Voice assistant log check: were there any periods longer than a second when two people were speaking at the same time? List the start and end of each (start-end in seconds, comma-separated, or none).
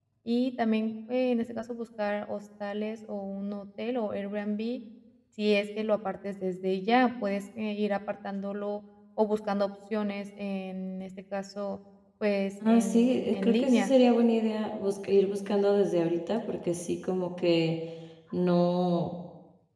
12.7-13.9